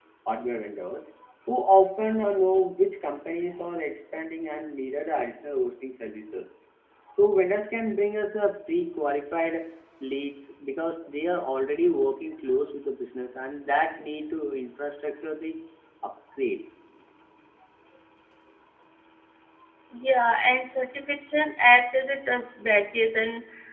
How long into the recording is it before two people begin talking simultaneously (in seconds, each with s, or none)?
none